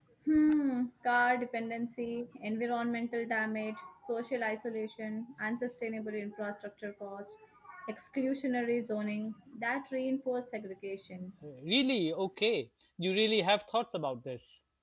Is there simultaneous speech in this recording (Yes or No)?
No